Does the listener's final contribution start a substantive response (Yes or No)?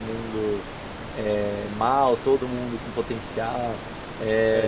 Yes